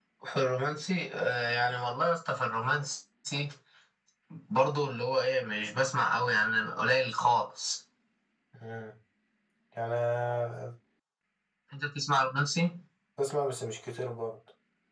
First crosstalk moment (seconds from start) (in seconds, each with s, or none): none